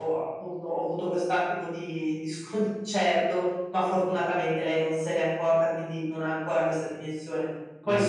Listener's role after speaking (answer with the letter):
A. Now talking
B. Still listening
B